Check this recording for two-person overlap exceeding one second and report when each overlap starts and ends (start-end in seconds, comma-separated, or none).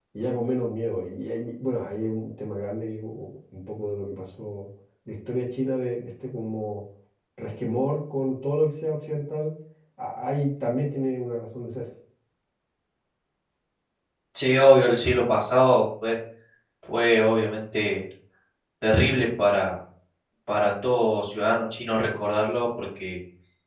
none